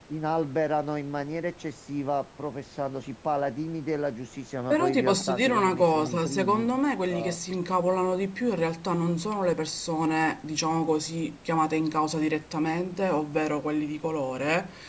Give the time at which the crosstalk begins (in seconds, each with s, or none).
4.7 s